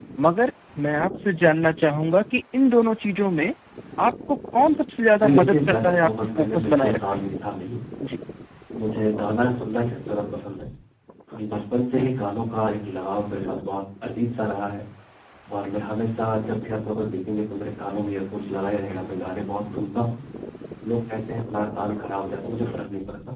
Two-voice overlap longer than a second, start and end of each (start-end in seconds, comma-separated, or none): 5.2-7.3